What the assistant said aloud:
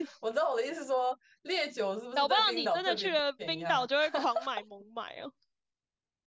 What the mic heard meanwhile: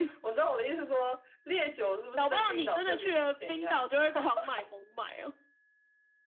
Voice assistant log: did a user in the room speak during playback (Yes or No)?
No